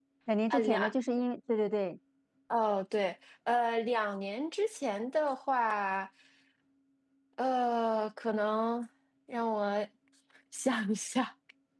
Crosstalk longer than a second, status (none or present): none